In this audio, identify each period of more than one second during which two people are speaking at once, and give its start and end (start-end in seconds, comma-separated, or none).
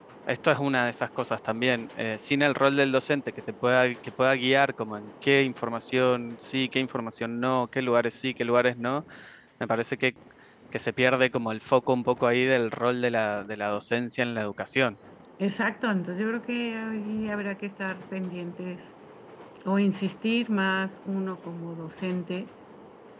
none